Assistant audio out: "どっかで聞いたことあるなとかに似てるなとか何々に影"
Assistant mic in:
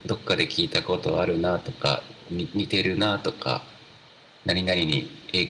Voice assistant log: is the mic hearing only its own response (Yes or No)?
Yes